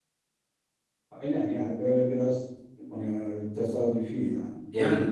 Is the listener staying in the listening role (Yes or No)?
No